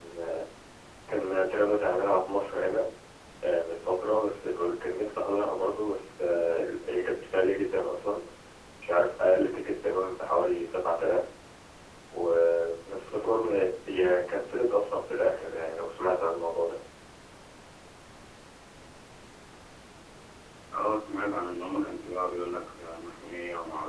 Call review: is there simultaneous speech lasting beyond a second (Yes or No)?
No